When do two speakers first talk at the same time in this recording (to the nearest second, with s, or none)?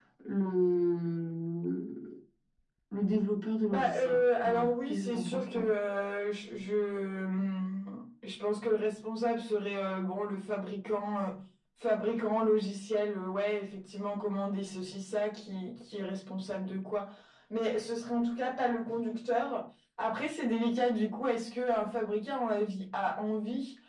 4 s